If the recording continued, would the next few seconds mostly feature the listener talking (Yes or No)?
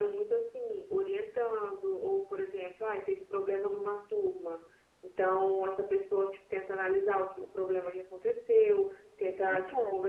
No